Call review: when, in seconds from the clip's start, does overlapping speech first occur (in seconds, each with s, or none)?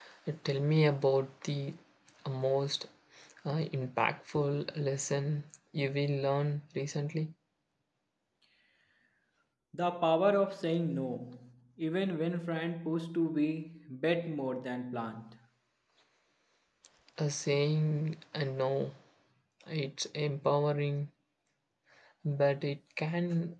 none